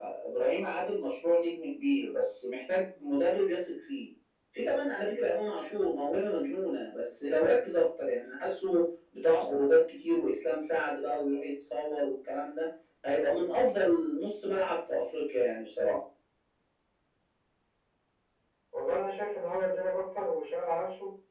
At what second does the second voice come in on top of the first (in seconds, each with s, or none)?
none